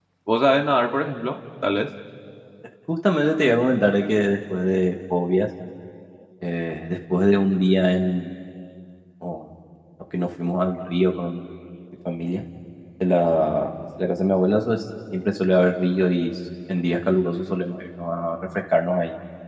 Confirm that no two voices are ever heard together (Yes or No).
Yes